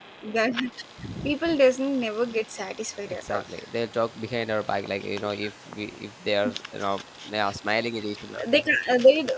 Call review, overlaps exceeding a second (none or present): none